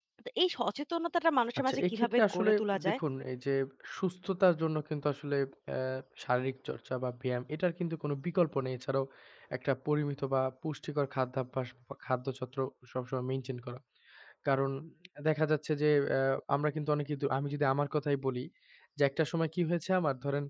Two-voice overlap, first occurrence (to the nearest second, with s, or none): 2 s